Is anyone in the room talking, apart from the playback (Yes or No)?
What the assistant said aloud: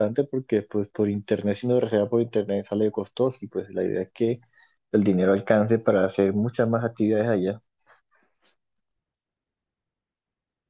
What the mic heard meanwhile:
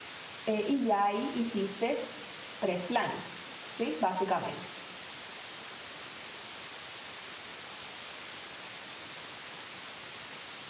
Yes